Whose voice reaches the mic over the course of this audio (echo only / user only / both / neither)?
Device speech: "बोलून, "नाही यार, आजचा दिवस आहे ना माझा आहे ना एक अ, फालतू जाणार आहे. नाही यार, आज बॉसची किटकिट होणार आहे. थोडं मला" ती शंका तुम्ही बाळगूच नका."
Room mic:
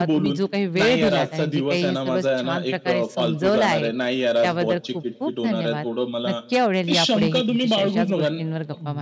both